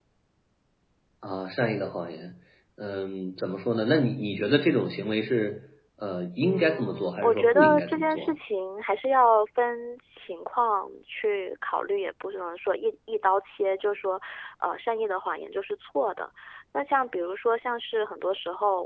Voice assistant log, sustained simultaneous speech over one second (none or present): present